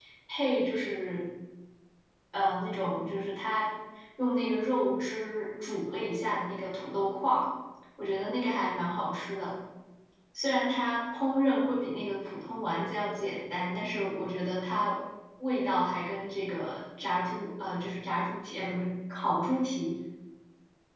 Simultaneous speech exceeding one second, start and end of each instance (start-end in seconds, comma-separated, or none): none